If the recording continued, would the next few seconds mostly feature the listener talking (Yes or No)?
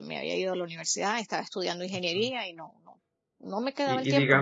Yes